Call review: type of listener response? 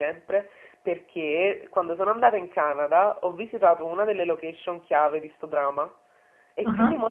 listening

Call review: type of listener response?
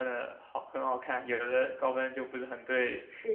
taking over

